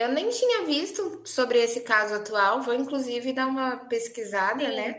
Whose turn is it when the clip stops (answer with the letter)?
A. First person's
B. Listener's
B